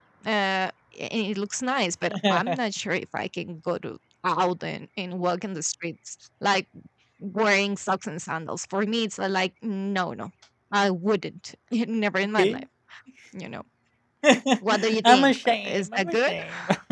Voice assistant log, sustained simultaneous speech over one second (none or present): present